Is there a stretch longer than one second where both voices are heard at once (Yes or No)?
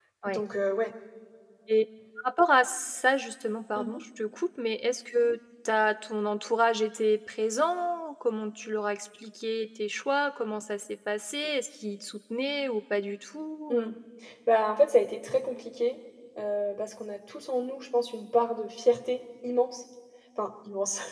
No